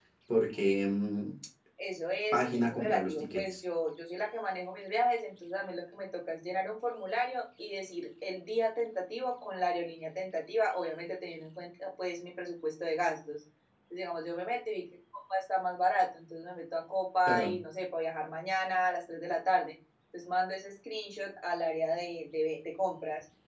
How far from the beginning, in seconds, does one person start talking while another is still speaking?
2.3 s

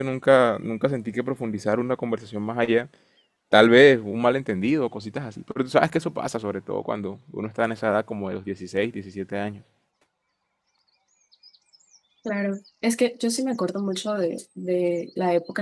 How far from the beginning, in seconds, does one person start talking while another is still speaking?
none

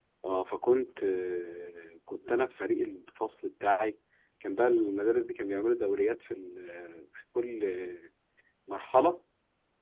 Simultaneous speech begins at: none

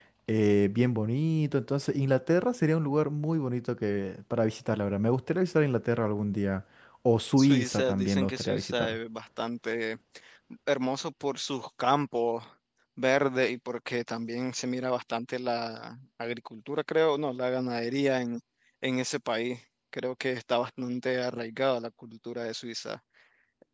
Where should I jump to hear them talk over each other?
7.4 s

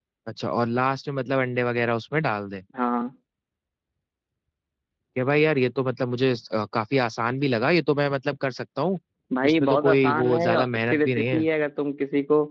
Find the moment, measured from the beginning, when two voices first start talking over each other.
9.4 s

